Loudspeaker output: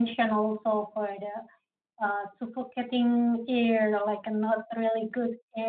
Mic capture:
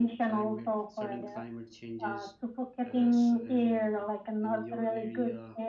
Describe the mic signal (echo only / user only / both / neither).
both